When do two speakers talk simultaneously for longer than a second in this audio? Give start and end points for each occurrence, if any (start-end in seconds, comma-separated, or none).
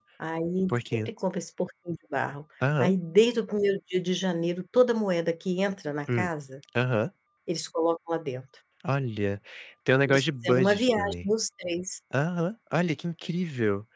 10.1-11.3